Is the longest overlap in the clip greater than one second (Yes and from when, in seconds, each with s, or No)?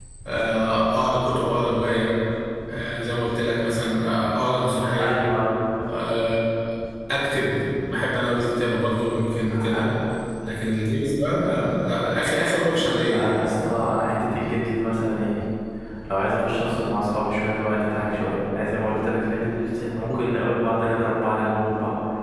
No